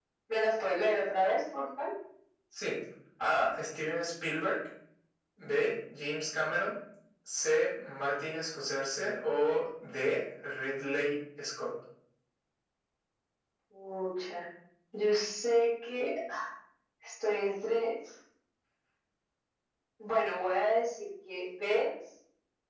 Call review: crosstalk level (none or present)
none